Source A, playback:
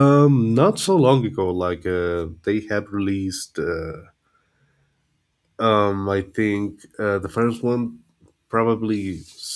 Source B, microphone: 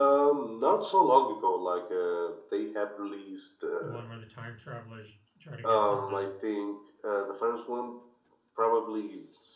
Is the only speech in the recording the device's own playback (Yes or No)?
No